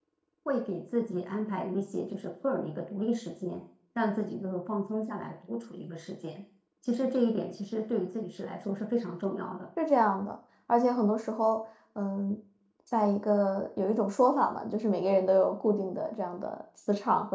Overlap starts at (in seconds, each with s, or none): none